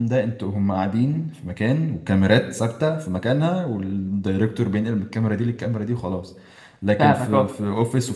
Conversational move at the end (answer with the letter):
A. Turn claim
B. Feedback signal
B